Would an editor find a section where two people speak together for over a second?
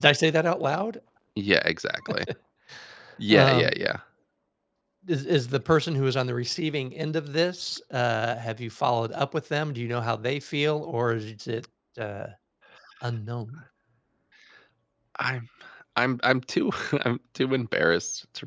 No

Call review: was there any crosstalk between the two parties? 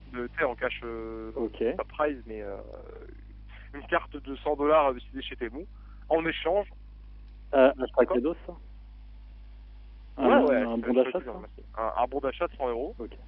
Yes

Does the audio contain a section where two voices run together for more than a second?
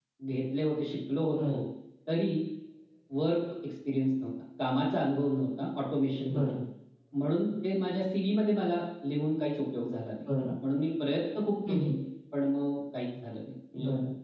No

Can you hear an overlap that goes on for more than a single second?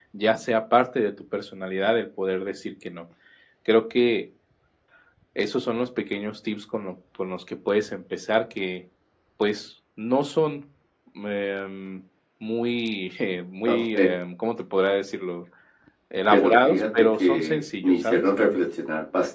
Yes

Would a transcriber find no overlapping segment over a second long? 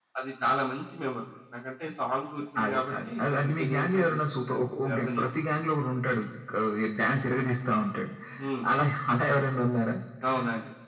No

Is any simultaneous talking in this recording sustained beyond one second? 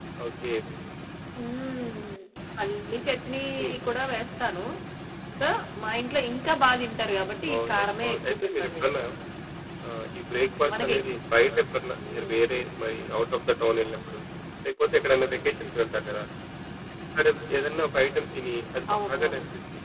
Yes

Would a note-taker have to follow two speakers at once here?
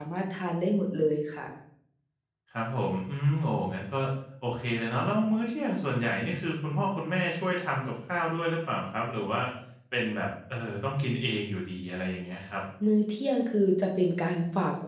No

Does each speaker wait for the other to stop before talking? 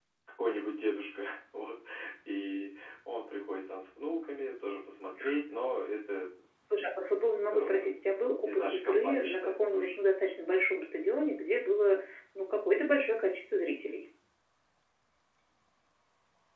No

